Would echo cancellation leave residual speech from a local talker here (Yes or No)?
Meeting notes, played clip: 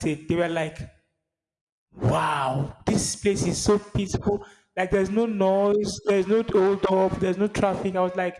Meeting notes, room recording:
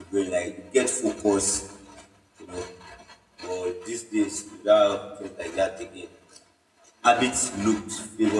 Yes